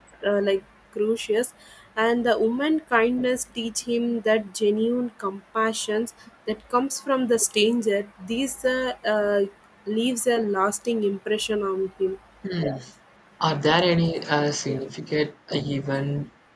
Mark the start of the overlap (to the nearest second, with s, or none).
none